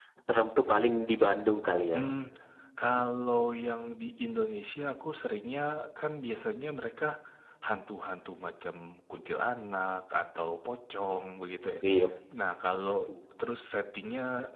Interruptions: none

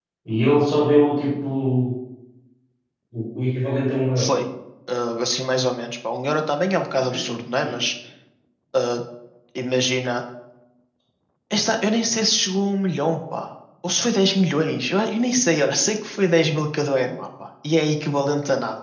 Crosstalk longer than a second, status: none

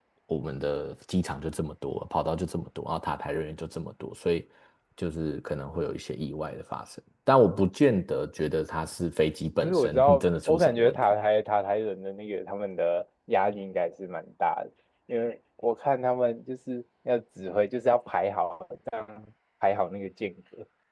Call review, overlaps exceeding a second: present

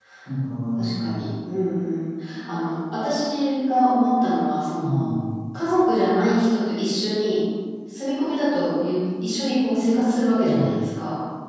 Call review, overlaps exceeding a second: none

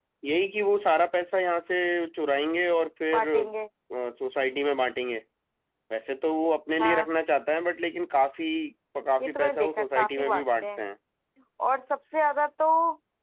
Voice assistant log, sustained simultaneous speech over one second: present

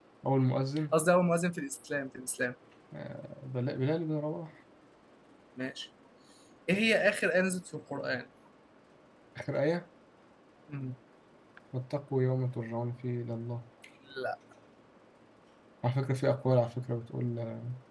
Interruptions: none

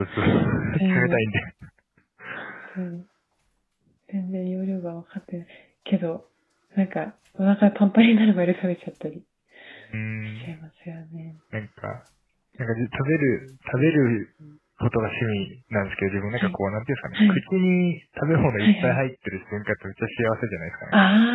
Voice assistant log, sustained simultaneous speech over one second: none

